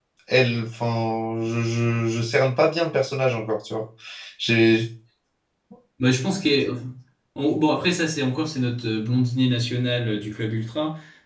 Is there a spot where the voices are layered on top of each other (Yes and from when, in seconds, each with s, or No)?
No